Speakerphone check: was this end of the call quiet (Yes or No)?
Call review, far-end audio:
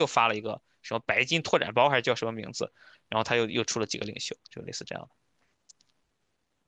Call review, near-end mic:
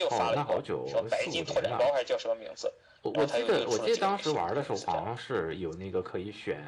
No